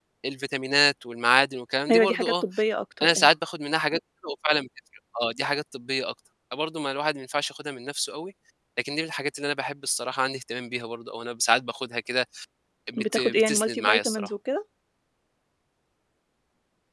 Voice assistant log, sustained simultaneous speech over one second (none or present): present